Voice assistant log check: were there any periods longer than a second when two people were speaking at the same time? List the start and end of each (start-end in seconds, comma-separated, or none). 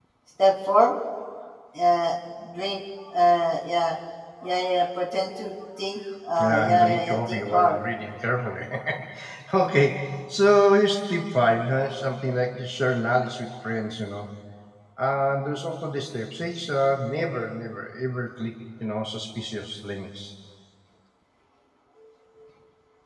6.4-7.8